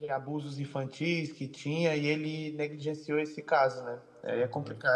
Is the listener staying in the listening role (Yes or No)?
No